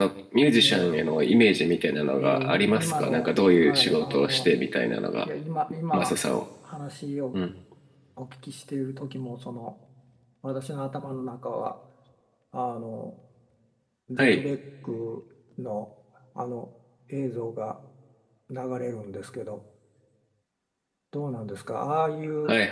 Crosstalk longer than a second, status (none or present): present